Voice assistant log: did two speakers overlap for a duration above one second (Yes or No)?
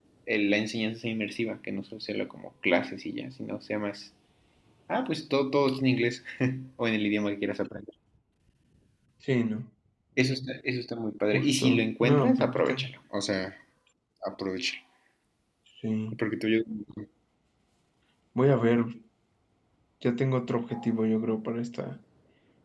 Yes